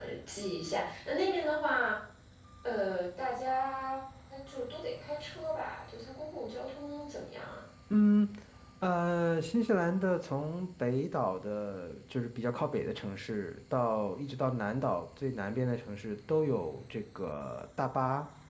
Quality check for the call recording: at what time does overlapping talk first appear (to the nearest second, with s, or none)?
none